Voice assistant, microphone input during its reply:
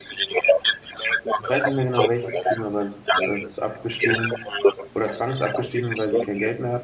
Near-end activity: present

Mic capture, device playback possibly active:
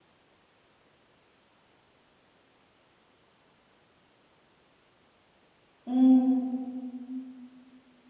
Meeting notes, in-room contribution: present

